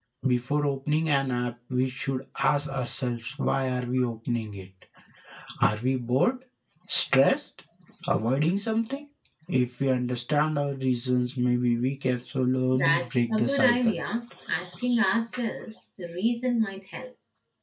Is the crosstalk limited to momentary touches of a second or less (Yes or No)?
No